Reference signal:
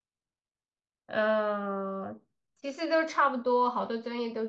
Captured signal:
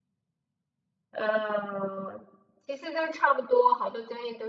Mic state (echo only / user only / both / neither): echo only